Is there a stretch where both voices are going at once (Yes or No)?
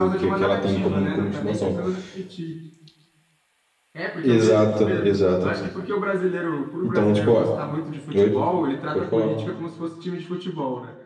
Yes